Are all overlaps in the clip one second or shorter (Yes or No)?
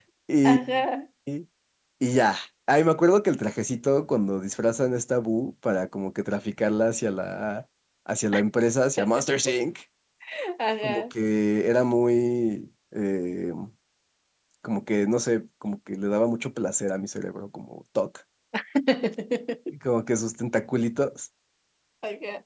Yes